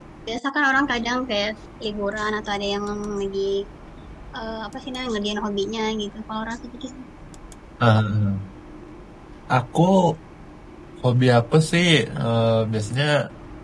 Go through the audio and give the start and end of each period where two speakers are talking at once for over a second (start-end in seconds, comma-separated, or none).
none